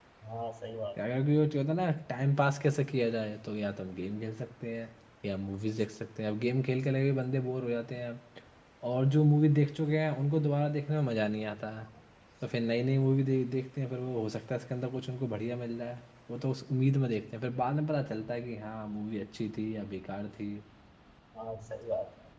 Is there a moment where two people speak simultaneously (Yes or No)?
No